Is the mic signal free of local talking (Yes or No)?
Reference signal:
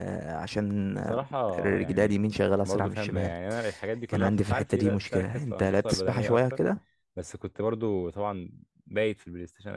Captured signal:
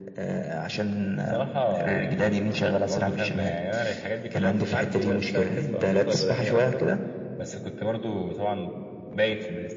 Yes